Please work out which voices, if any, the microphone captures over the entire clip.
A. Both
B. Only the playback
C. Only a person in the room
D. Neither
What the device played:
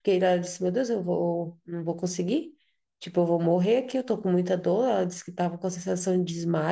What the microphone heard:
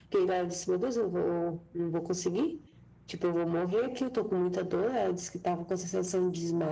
B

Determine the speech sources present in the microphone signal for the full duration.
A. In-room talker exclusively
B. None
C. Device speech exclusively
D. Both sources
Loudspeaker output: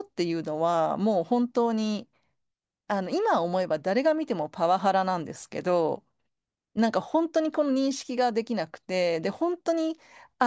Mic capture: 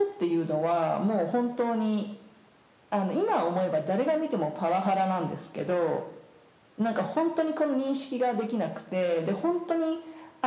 C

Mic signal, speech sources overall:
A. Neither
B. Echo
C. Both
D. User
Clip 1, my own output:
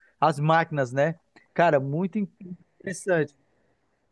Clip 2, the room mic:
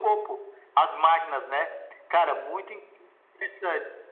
B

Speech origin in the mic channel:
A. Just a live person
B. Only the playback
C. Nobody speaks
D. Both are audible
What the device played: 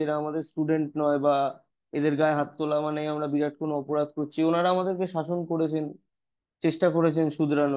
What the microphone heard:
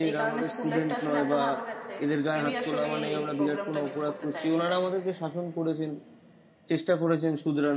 D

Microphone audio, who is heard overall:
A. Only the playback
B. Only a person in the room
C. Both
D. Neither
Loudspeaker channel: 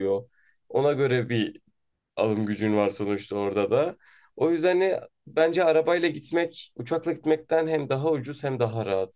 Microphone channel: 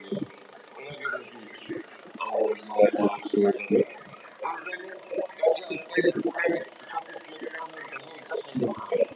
A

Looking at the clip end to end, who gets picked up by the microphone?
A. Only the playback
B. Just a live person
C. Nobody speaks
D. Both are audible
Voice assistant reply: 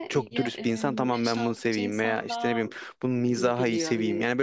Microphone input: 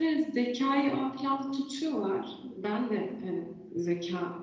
B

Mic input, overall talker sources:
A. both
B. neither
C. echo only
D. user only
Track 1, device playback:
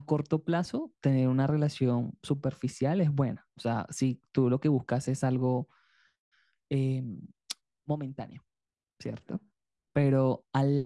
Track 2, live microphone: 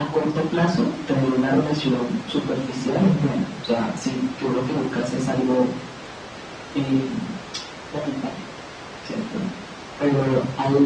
C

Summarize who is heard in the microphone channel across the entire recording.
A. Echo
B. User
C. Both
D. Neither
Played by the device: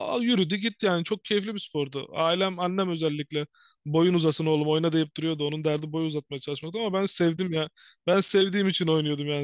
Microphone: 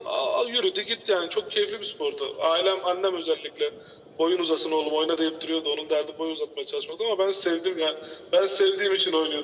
A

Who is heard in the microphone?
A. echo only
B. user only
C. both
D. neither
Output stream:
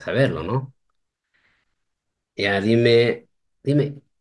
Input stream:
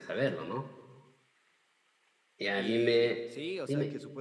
C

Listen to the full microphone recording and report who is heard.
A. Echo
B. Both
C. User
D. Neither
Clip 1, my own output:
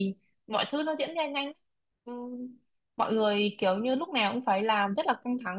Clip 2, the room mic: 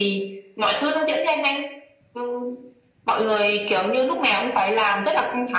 A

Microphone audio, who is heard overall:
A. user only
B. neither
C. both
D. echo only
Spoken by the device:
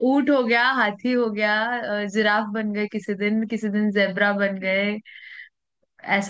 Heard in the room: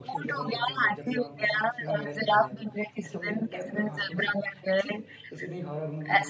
C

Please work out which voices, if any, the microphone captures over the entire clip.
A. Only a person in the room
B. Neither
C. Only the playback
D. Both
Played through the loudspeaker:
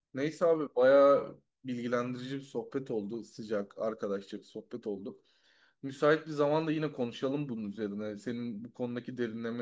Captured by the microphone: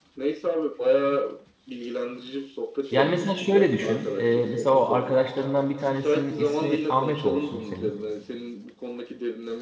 D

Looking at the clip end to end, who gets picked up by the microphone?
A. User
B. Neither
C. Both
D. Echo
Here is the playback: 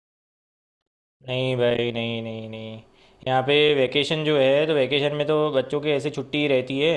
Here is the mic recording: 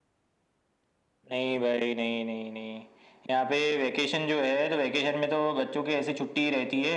D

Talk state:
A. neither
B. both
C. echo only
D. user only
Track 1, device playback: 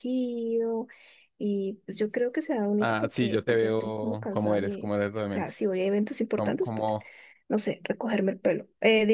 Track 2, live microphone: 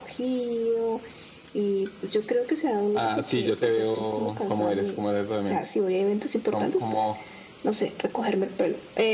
C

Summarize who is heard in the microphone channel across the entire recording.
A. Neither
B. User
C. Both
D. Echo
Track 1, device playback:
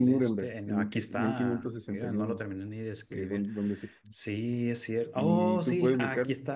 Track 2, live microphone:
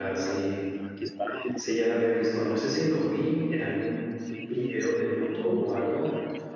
C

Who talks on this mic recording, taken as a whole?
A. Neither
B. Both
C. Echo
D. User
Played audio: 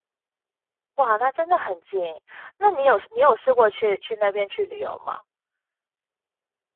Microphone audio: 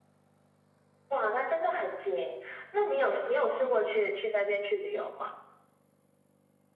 C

